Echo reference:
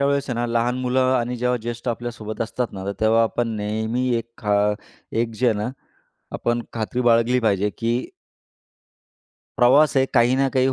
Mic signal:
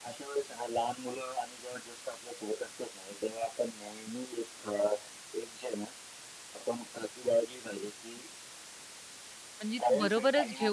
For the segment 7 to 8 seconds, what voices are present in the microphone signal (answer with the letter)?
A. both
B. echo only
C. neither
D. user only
B